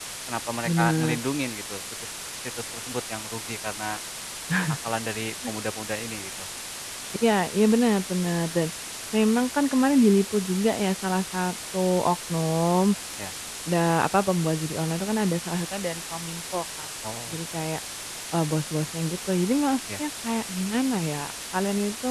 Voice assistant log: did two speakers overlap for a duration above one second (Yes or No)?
No